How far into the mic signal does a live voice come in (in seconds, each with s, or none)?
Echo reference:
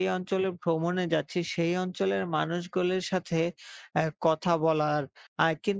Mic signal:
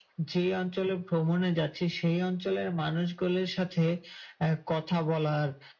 none